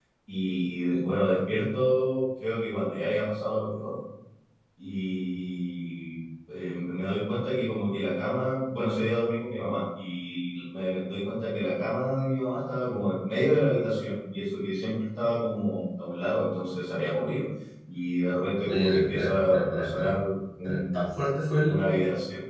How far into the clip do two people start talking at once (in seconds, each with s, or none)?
18.6 s